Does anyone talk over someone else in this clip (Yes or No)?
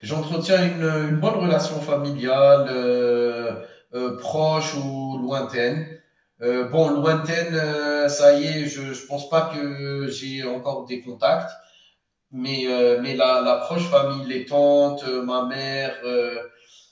No